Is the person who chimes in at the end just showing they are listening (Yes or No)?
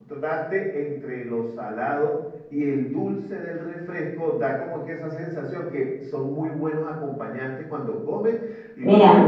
Yes